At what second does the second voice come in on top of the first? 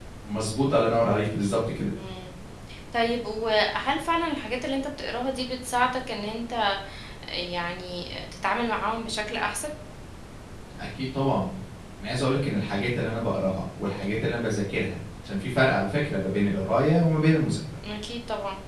none

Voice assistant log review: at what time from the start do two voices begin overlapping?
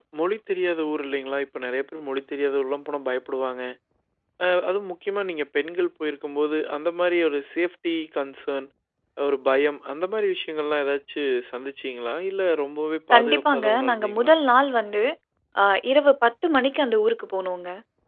13.1 s

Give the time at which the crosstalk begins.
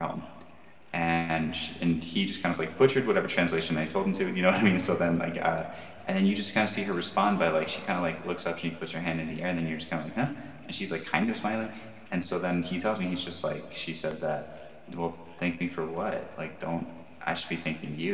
none

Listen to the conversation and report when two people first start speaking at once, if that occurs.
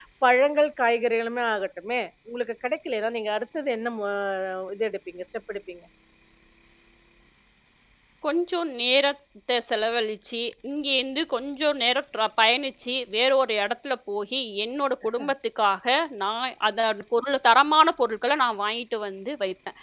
none

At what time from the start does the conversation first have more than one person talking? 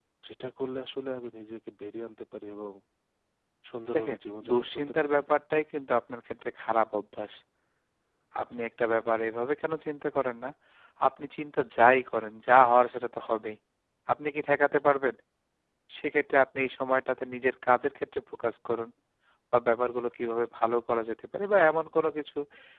4.0 s

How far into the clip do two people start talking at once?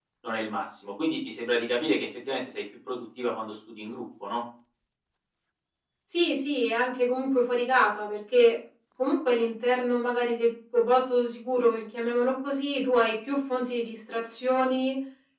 none

